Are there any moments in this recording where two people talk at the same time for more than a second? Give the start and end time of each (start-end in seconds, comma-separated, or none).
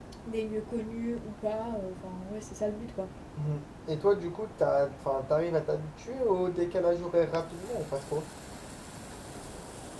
none